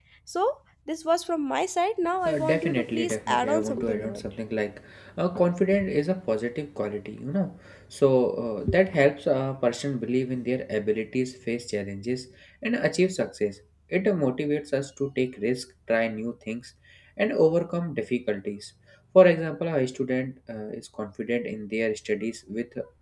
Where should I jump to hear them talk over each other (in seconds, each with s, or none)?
2.2 s